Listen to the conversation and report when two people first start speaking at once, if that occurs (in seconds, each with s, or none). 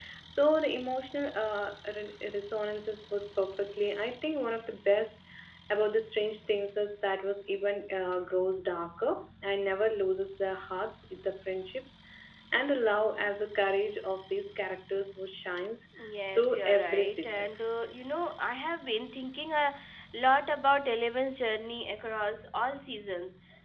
16.3 s